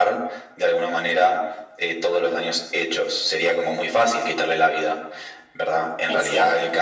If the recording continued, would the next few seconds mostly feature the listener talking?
No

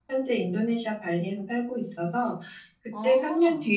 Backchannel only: Yes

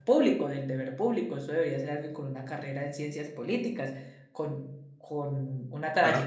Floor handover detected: No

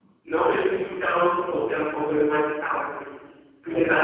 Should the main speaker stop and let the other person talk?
No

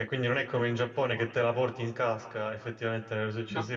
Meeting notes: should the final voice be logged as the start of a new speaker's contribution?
No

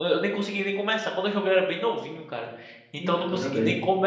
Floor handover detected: No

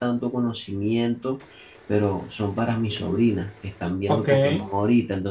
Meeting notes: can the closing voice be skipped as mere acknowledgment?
Yes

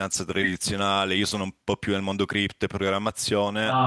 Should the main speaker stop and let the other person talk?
No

